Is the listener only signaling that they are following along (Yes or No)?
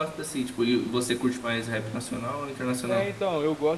No